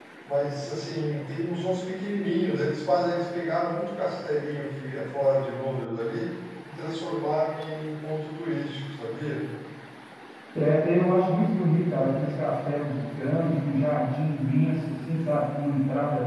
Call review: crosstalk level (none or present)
none